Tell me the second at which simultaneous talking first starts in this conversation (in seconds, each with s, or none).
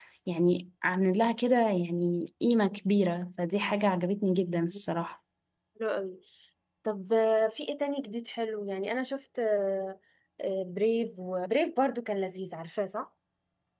none